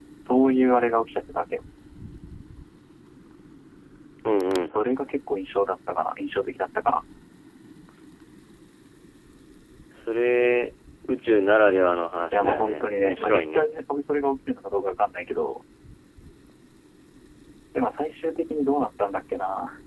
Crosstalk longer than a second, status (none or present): present